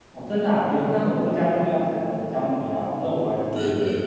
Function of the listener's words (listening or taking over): taking over